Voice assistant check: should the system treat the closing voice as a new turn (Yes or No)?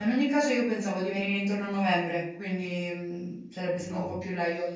No